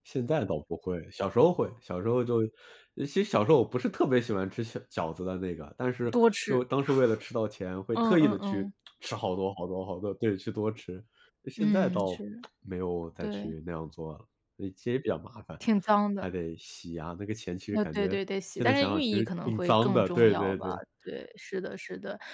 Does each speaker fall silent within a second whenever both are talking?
No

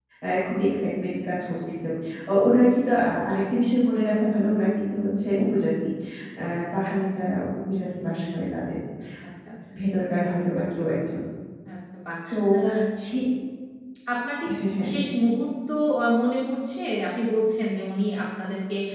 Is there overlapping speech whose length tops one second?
No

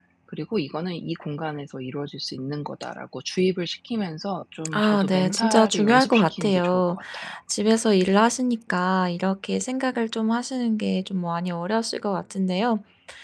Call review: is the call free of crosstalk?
No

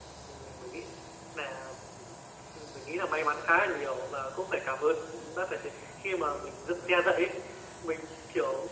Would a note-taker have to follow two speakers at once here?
No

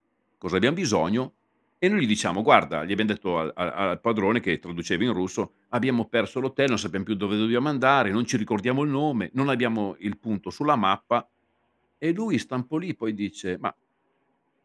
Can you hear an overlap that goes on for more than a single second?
No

